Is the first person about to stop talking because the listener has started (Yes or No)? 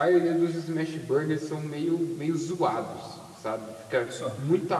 No